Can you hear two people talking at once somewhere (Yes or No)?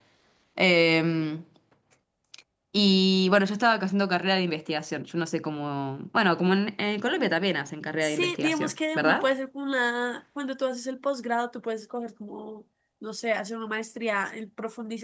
Yes